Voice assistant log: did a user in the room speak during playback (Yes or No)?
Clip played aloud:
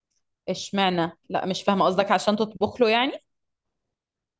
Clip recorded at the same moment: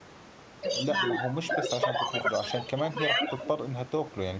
Yes